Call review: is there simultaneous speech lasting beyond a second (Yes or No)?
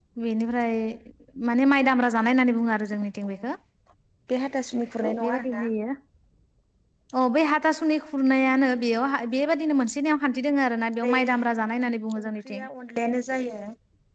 No